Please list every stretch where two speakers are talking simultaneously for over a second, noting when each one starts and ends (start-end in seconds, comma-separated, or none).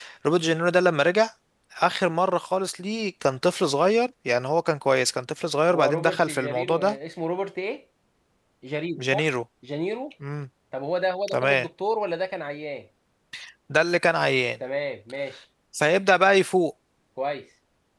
5.7-7.0